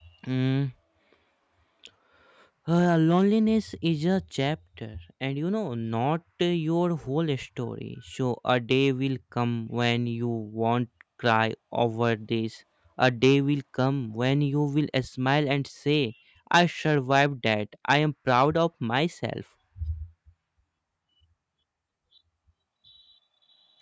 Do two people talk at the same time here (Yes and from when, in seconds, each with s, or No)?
No